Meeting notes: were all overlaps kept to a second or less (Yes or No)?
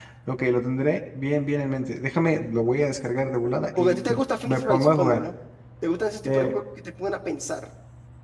No